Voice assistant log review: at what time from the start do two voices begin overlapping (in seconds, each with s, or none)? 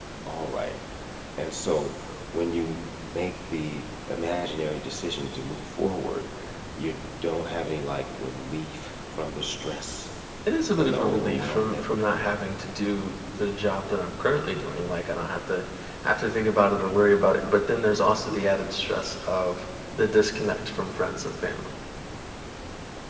10.8 s